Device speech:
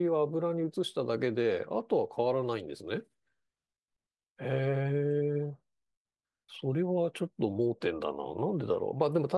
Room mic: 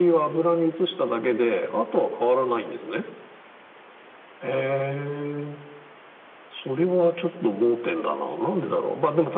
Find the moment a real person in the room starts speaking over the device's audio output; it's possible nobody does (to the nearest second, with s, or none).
none